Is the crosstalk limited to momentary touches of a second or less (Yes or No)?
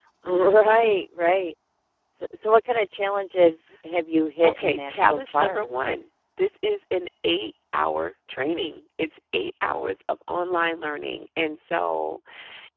No